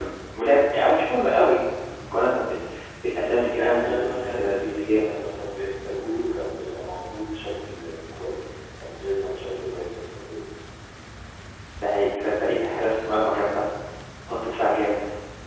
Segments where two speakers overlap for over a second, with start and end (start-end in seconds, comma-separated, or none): 3.5-5.0